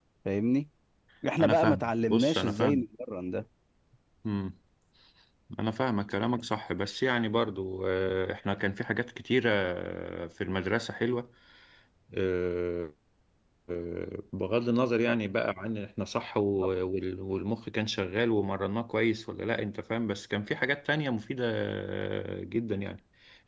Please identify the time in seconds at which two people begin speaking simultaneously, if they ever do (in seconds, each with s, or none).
1.4 s